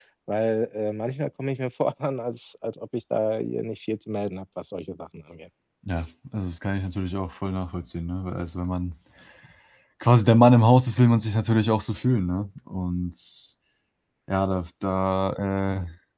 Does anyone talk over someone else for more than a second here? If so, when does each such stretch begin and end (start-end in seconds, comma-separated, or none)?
none